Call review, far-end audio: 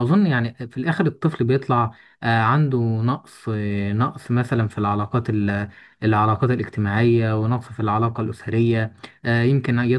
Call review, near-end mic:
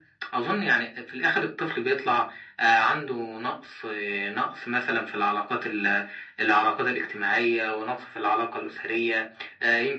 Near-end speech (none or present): none